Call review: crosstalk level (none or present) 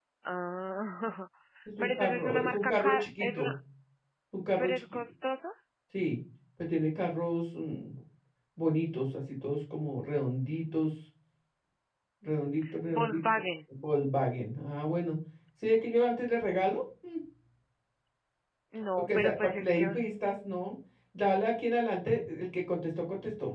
present